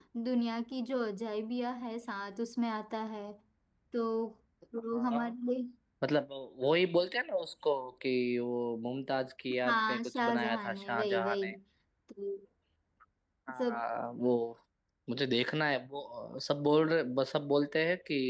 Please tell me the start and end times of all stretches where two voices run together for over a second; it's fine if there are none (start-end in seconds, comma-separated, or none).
9.7-11.5